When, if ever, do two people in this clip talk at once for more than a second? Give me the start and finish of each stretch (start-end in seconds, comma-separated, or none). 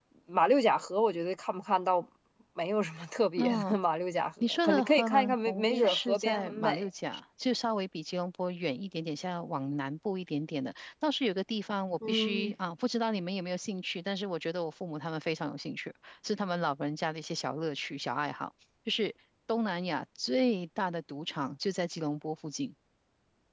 4.4-6.9